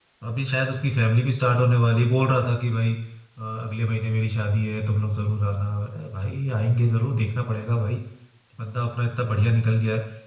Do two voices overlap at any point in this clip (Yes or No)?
No